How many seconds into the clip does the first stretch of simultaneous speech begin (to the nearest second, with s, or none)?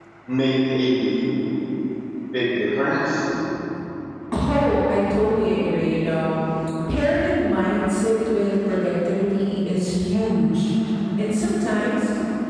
none